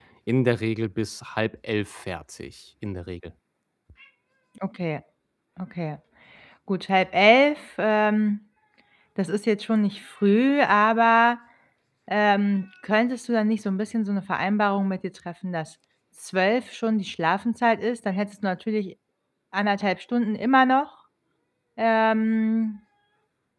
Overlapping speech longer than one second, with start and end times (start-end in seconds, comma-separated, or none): none